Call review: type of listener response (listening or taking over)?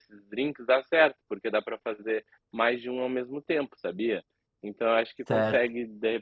listening